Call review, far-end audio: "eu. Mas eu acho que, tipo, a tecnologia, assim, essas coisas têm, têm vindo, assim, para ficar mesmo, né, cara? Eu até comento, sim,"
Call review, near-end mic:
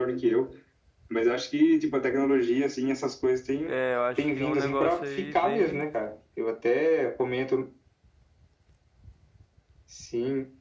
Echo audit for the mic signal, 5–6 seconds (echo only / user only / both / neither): both